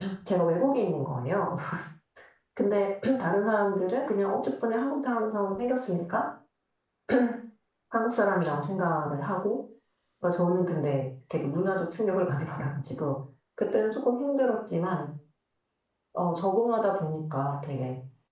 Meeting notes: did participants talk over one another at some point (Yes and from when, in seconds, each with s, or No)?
No